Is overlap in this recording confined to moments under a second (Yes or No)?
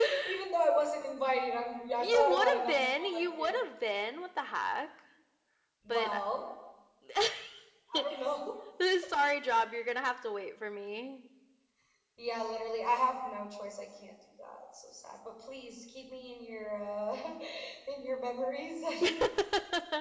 No